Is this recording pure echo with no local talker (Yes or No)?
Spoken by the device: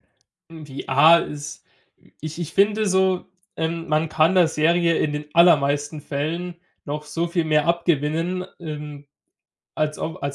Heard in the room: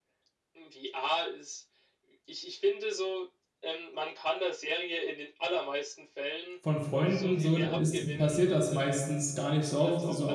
No